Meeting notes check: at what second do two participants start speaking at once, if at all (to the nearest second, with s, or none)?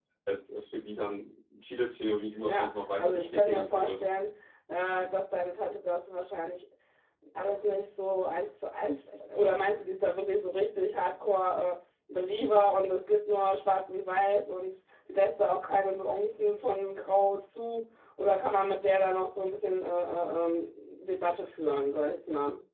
2 s